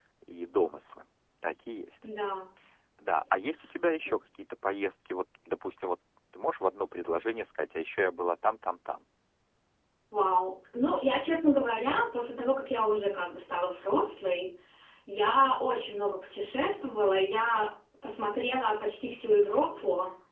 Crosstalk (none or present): none